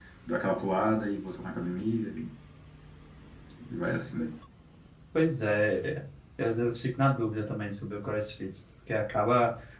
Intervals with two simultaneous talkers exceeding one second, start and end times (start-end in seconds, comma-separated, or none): none